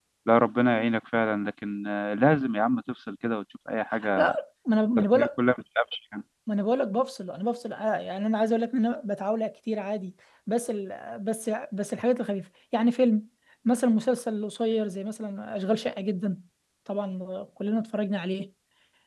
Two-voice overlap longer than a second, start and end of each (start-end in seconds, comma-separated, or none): none